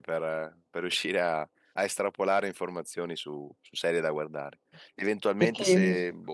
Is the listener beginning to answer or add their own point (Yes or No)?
No